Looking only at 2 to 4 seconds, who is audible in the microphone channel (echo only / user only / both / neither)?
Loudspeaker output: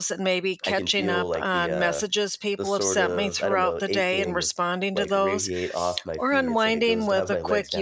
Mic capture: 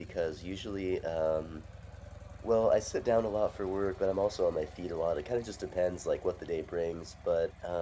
user only